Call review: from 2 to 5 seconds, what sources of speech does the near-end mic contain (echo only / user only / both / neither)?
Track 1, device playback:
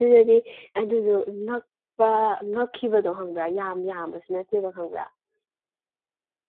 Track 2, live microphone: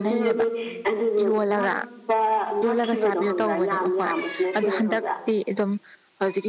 both